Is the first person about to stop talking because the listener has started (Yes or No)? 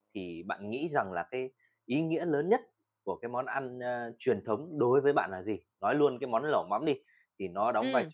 No